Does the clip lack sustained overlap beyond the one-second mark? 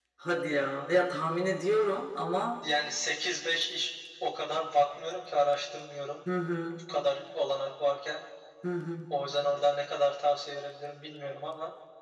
Yes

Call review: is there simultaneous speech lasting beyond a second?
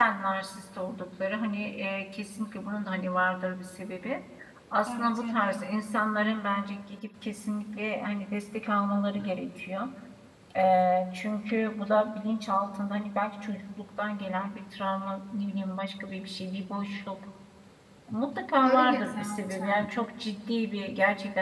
Yes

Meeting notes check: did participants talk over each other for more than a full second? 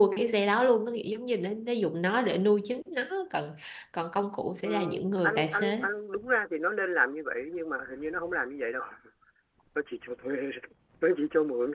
Yes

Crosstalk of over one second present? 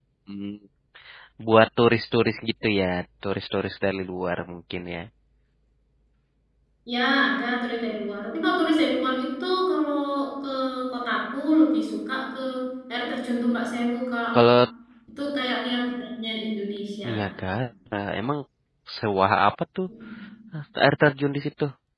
No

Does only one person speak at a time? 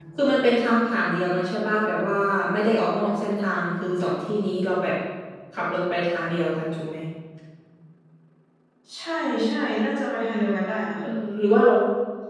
Yes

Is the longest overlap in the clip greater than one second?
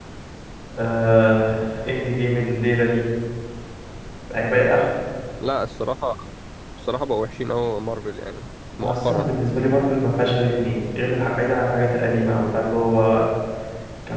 No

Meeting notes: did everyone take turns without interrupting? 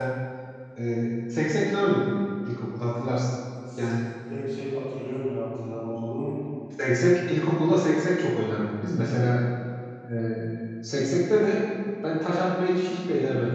Yes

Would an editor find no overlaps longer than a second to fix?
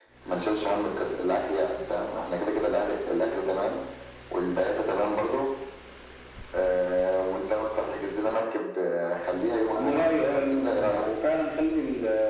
No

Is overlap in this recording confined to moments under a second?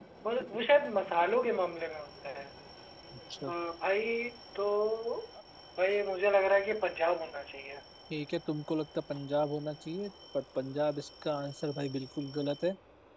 Yes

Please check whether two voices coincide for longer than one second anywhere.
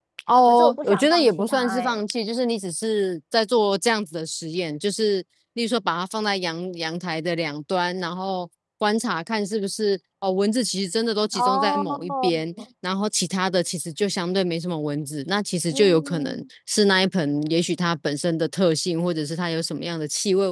Yes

